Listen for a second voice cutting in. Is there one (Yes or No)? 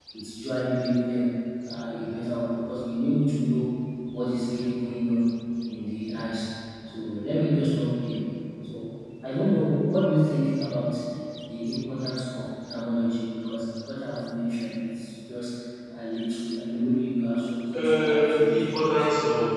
Yes